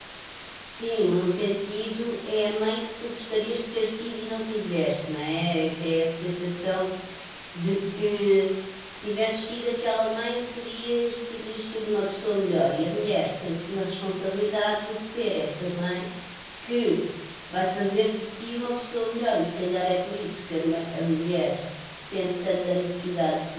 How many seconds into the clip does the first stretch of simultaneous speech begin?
none

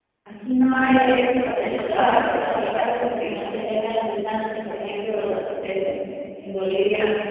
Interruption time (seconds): 2 s

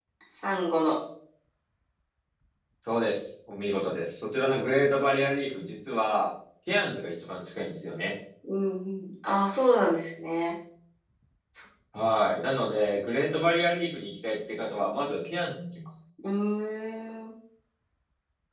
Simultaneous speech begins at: none

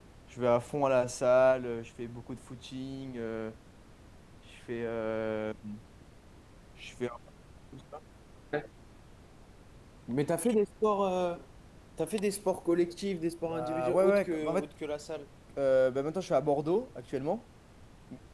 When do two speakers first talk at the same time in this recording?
13 s

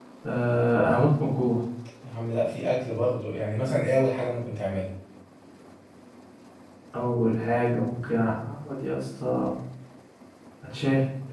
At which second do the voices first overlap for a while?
none

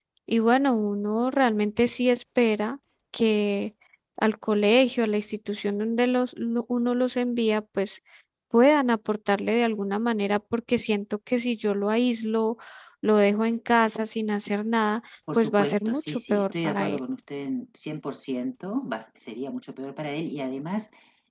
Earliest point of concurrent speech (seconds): 15 s

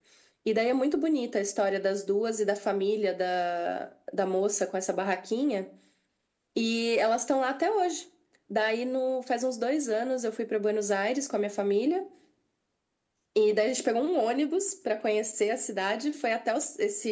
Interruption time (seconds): none

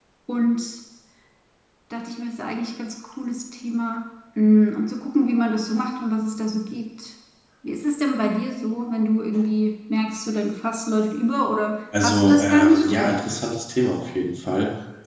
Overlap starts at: 12 s

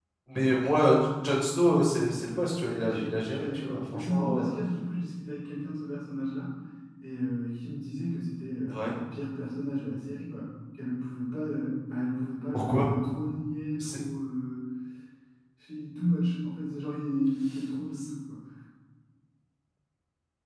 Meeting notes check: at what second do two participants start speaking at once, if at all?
3 s

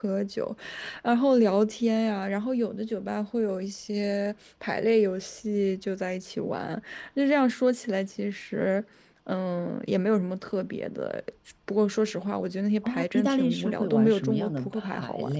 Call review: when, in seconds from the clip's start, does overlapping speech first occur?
13 s

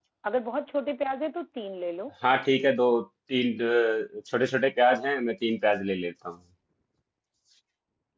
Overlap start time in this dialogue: none

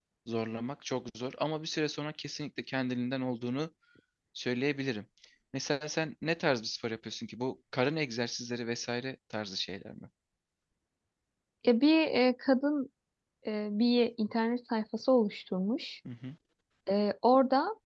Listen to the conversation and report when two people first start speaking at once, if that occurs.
none

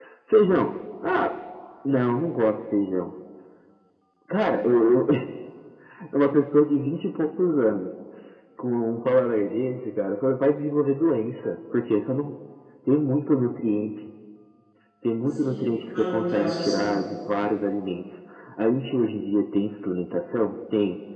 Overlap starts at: 15 s

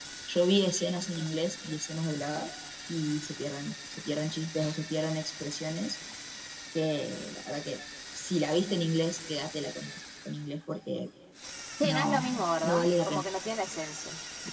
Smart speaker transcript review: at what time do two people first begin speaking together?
12 s

